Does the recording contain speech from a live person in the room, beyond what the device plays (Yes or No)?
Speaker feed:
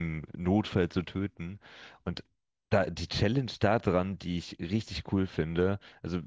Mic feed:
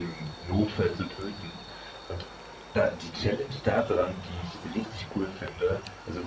No